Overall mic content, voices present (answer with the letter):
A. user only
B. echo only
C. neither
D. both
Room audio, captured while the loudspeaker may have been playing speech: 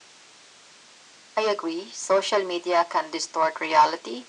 B